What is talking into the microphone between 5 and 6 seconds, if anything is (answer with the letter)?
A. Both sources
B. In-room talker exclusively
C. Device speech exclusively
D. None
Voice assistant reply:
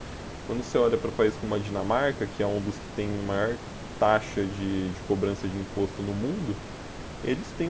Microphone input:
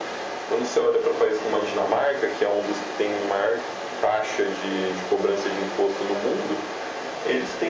C